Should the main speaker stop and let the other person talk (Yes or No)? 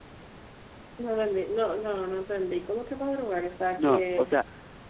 Yes